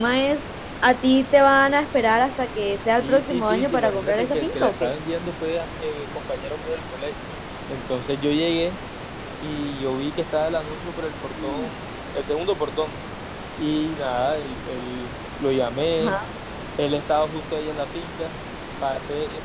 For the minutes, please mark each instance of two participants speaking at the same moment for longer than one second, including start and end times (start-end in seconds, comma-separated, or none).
3.0-4.9